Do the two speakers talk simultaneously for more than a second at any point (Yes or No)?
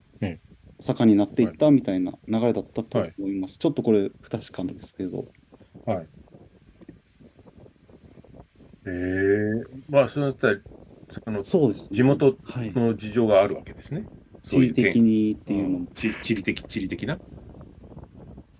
No